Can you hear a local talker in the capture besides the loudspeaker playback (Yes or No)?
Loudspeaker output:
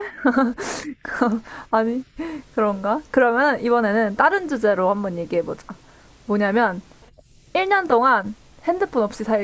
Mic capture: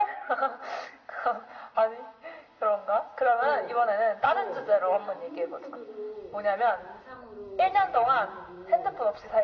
Yes